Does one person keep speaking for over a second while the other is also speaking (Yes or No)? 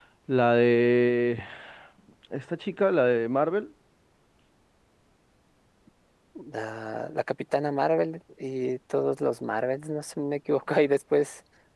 No